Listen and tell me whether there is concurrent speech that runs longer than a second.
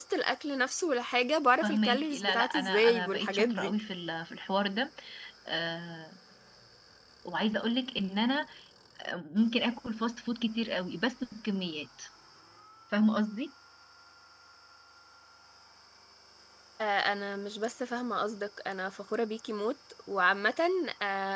Yes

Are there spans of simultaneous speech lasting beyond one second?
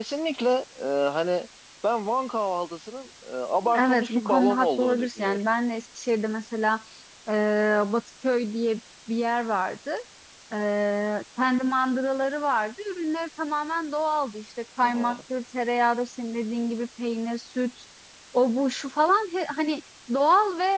Yes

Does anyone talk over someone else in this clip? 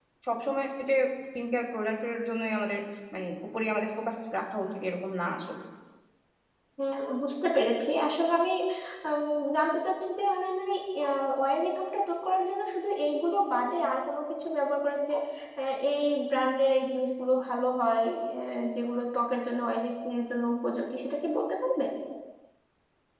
No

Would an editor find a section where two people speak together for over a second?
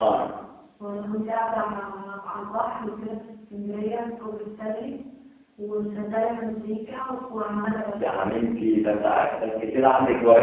No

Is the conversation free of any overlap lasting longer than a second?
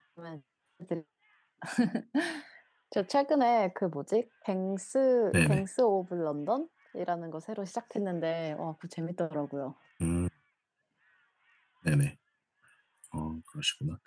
Yes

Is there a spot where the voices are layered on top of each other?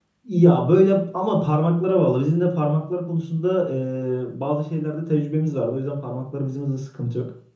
No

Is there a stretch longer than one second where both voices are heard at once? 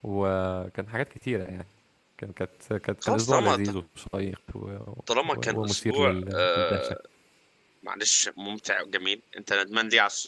Yes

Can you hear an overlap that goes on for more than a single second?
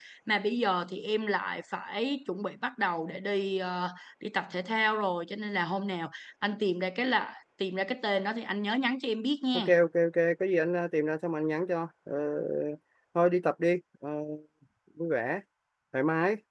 No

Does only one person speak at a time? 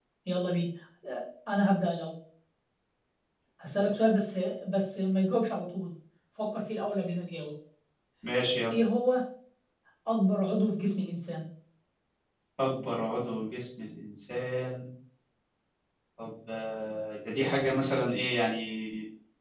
Yes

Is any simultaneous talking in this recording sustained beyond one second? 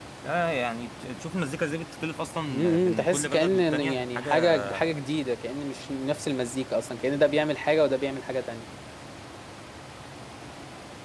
Yes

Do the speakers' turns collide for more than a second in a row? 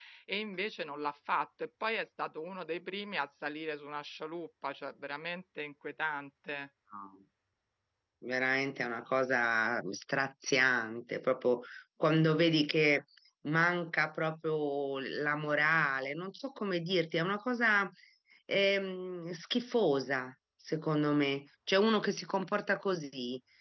No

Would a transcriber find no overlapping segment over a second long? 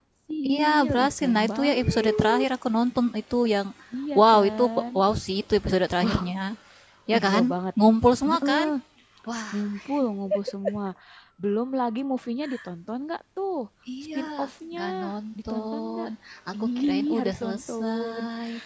No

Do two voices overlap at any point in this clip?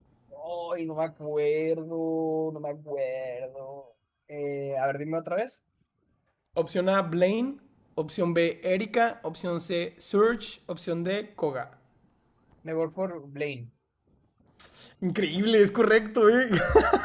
No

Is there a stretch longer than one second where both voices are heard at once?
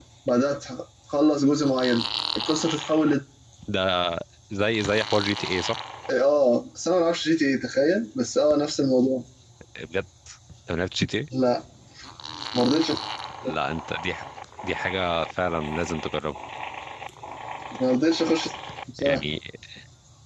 No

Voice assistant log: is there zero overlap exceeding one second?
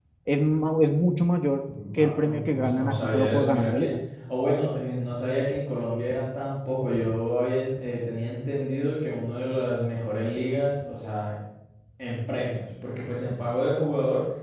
No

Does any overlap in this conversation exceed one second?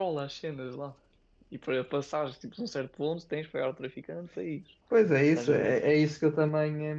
No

